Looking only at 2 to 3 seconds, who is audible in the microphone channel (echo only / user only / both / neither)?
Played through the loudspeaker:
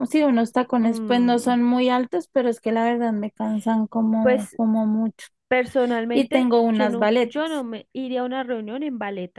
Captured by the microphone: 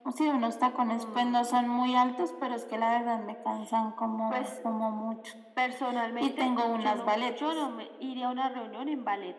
echo only